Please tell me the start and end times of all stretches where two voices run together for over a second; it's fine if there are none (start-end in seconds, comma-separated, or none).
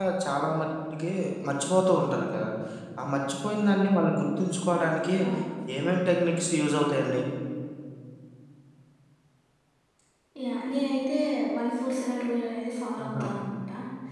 none